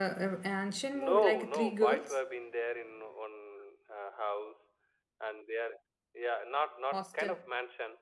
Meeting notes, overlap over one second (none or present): present